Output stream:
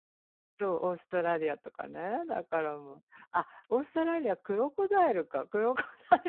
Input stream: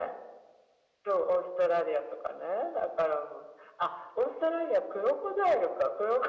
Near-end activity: none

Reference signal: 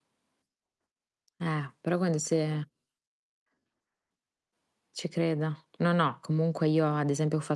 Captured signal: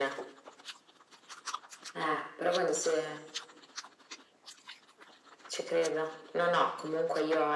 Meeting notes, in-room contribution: none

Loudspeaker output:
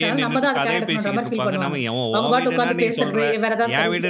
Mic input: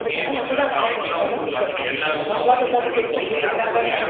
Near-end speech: present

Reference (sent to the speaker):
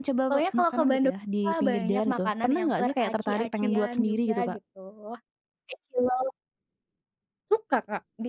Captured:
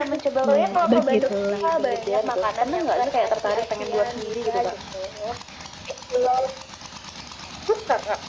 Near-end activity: present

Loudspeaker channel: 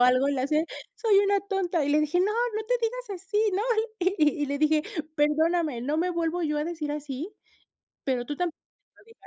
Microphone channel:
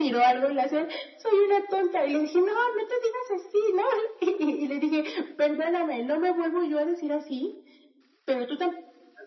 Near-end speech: none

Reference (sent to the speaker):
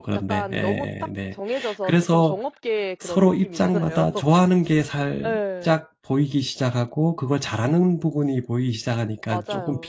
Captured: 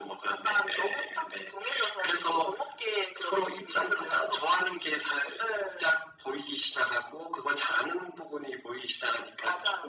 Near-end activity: none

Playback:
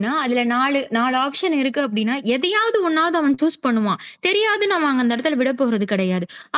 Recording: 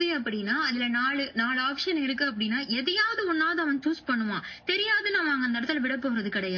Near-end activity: none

